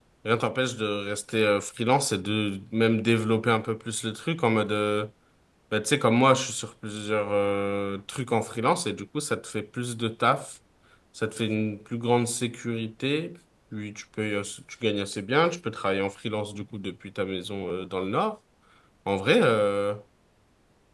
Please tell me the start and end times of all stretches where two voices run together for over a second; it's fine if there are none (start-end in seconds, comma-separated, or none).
none